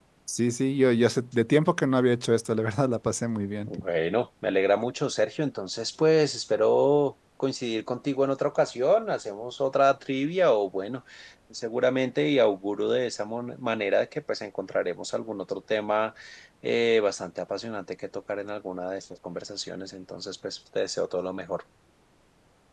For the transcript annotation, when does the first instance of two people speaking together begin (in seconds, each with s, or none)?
none